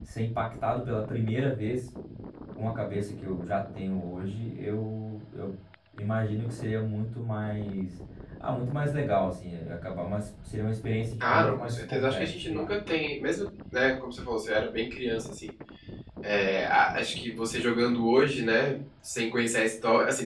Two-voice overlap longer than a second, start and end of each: 11.2-12.7

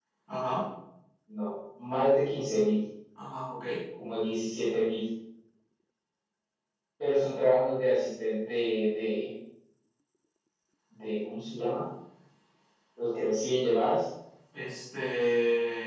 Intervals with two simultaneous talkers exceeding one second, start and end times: none

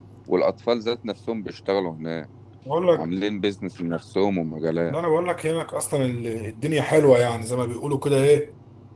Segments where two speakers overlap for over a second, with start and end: none

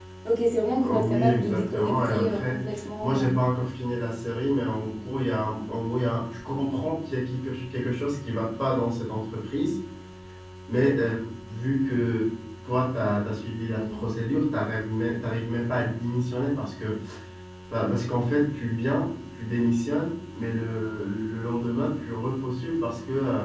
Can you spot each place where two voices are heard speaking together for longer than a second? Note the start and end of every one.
0.8-2.6

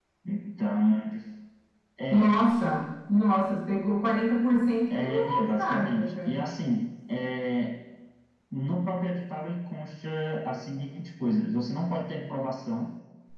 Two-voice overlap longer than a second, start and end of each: 5.0-6.4

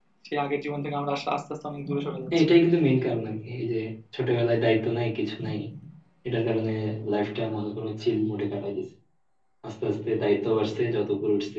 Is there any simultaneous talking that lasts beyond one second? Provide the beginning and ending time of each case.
none

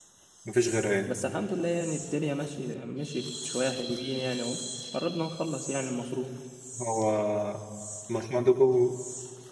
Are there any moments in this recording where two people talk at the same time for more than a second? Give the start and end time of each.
none

